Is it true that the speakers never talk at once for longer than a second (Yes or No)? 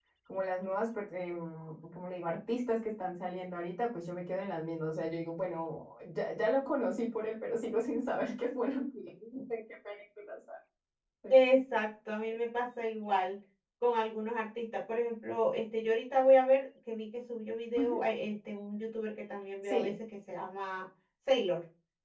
Yes